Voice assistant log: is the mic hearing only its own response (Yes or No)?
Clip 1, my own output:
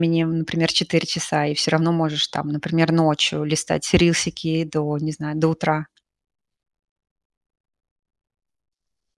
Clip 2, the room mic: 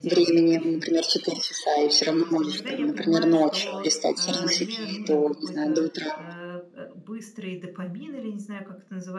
No